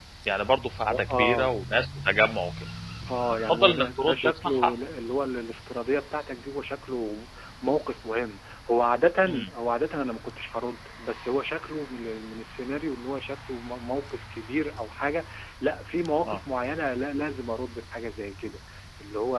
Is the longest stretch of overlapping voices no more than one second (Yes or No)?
No